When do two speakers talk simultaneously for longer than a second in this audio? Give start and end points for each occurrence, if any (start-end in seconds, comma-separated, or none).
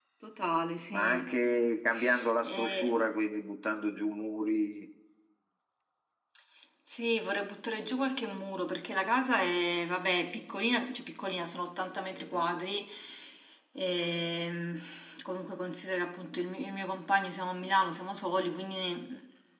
none